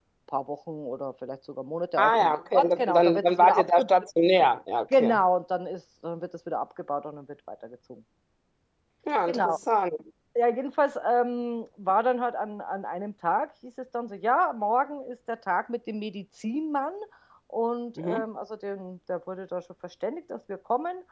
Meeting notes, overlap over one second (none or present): present